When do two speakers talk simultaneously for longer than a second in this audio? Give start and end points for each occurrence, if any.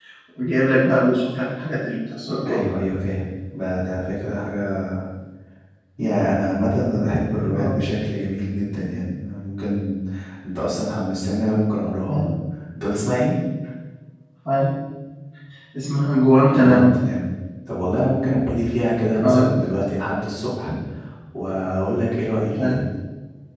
none

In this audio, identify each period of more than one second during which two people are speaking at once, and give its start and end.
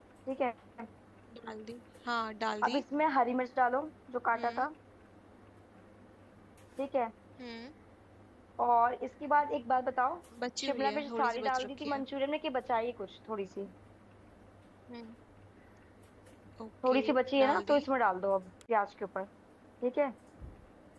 10.7-12.0

